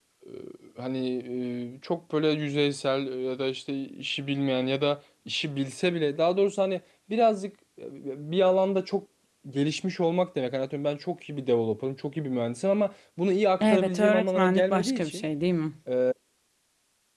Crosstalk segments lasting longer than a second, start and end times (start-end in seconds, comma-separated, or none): 13.6-15.2